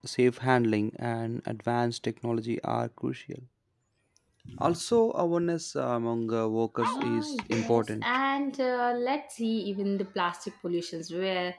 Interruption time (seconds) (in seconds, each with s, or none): 6.8 s